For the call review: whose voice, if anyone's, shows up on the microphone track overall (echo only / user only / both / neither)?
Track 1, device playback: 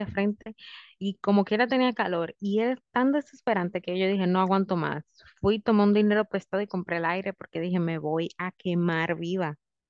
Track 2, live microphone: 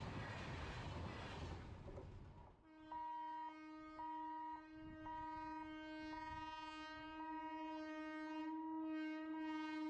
neither